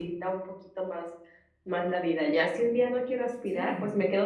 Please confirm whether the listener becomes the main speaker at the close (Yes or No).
No